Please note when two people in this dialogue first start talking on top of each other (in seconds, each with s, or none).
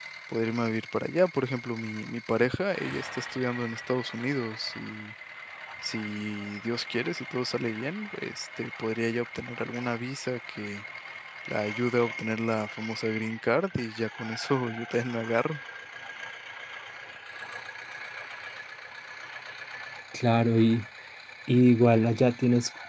none